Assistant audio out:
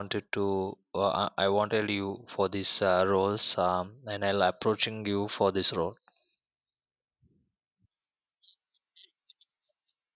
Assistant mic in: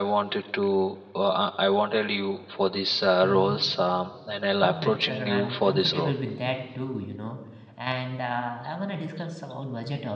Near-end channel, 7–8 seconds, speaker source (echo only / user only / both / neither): user only